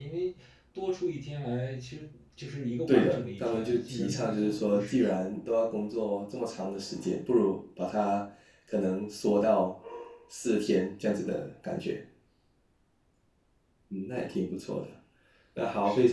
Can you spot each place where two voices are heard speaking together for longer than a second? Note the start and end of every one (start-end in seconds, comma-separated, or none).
2.9-5.1